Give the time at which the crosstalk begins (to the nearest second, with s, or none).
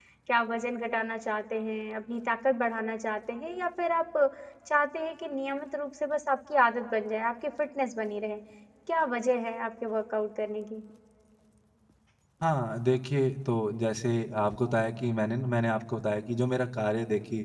none